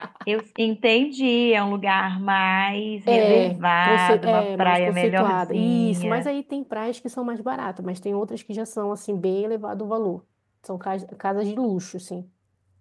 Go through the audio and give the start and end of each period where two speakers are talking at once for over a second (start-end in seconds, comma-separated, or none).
3.1-6.3